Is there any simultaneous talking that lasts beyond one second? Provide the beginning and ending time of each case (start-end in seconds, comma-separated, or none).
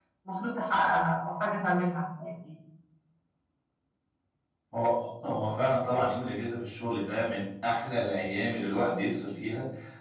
none